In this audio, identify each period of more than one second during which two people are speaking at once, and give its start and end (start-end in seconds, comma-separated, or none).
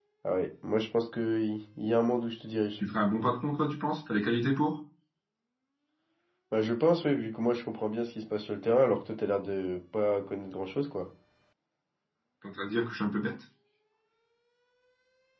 none